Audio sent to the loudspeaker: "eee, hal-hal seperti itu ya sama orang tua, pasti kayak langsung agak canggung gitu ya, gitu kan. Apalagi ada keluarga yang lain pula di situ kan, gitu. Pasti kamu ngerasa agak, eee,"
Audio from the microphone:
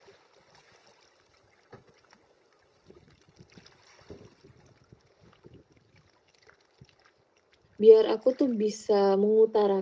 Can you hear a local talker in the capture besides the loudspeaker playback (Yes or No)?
Yes